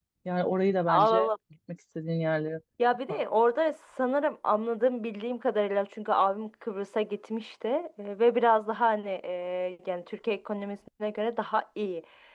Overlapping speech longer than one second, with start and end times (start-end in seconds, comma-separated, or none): none